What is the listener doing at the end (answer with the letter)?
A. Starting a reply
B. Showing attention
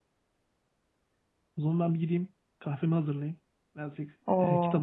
A